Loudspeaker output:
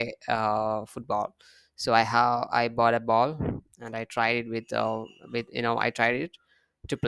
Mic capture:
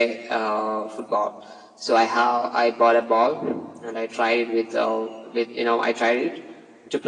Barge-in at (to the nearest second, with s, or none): none